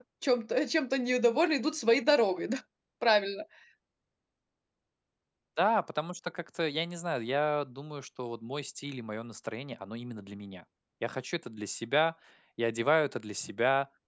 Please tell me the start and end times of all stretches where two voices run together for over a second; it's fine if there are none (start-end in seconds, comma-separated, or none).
none